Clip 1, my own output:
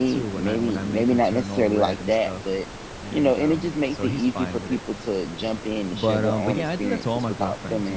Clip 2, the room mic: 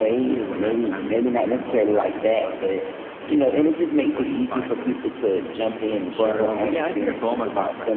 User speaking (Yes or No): No